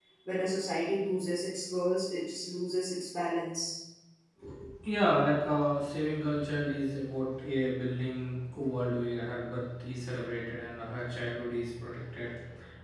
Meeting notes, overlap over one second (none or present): none